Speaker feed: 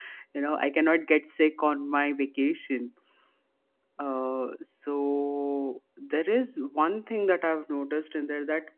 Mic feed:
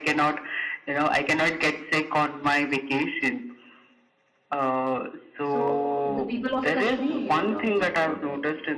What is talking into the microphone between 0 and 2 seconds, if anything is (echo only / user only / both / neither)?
echo only